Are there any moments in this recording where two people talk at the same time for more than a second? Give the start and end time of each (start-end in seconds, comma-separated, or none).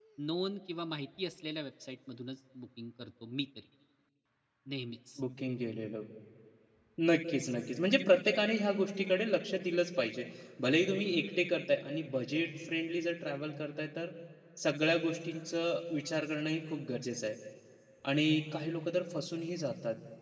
none